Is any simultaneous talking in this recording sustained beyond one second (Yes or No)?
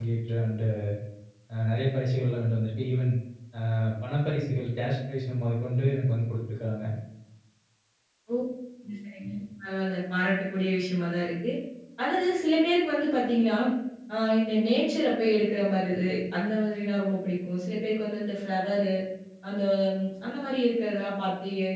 No